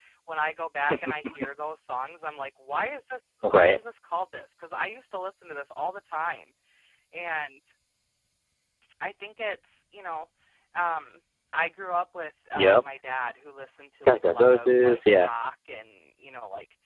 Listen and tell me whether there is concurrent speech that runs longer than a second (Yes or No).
Yes